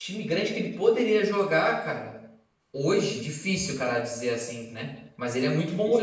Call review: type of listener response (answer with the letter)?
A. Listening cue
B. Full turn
A